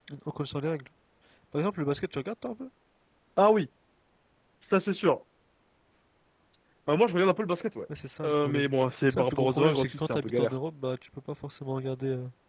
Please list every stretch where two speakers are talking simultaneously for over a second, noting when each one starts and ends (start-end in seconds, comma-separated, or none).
9.1-10.5